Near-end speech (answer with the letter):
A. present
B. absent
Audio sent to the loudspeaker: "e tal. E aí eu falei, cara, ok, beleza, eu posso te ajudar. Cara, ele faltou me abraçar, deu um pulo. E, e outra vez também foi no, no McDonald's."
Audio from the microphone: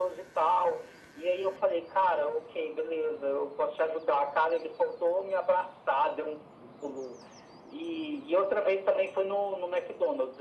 B